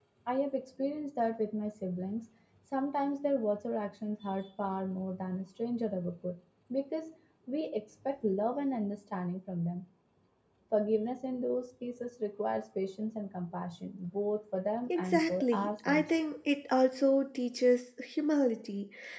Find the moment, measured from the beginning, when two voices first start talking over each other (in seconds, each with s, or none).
14.9 s